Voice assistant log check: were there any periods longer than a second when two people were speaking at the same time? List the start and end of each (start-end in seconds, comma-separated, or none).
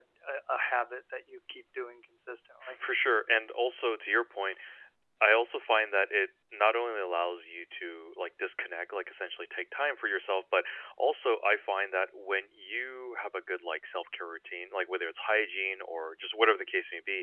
none